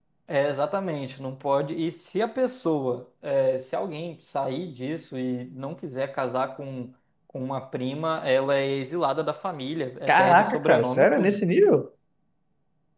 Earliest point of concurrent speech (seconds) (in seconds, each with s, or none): 10.1 s